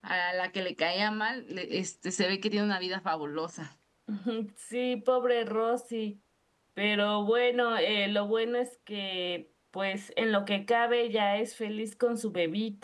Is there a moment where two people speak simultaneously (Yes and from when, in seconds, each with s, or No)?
No